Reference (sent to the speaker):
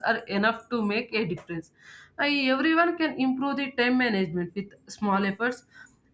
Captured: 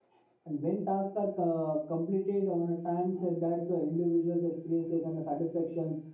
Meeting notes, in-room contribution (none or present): present